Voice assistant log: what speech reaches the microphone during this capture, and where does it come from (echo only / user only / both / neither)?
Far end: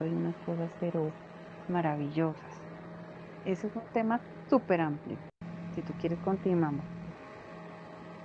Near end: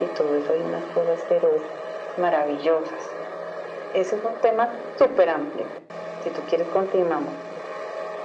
echo only